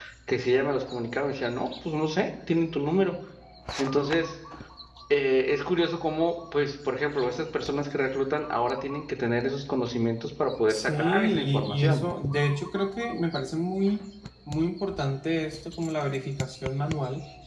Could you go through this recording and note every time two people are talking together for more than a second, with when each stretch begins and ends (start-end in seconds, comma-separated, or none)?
10.7-12.0